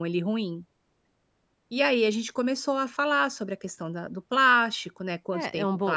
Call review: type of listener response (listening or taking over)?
taking over